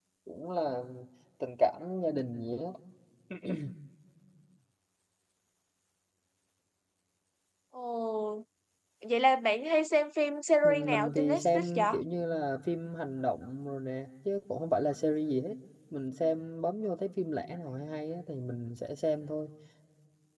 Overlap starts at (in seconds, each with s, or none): 10.6 s